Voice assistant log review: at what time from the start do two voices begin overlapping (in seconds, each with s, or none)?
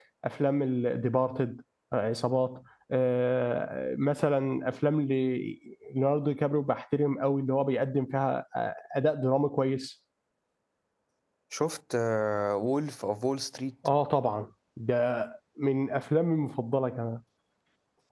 none